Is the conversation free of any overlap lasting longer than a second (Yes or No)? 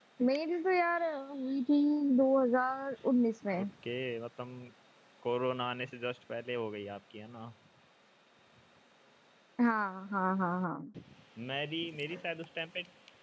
Yes